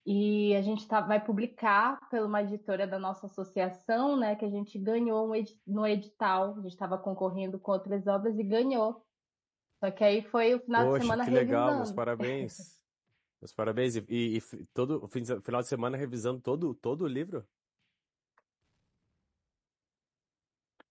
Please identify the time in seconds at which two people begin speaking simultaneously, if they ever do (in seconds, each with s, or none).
10.8 s